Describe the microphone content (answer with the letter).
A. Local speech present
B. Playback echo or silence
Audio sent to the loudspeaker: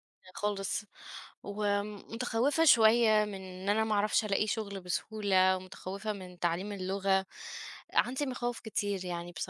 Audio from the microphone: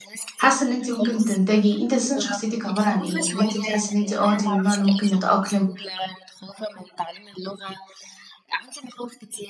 A